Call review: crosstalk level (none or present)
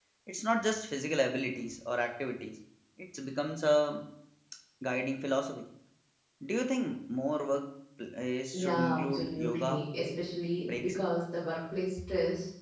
present